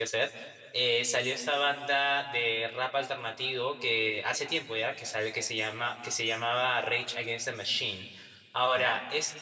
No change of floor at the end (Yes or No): Yes